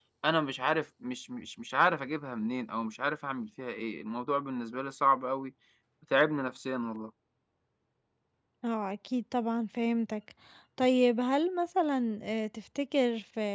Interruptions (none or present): none